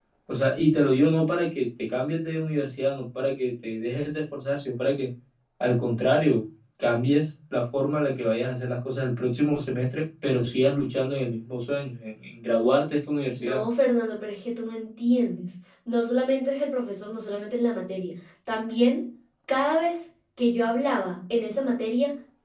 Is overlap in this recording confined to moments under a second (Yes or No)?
Yes